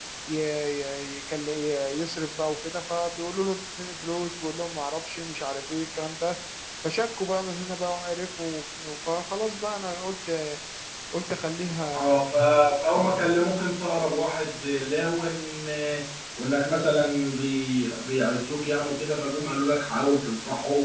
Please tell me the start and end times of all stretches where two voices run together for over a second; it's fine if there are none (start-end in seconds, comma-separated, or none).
none